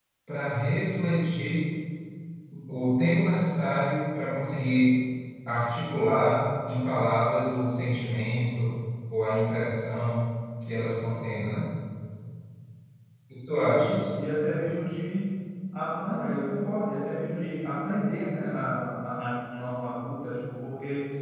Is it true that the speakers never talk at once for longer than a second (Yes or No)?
Yes